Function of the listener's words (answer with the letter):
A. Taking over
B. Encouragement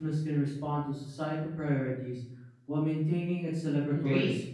A